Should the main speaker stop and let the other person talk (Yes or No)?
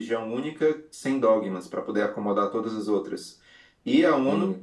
No